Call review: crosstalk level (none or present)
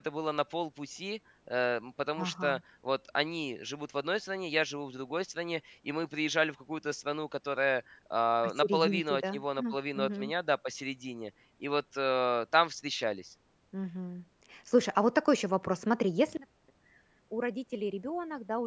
present